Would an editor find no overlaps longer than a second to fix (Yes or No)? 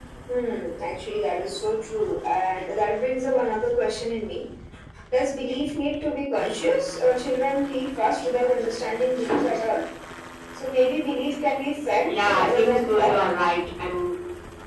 No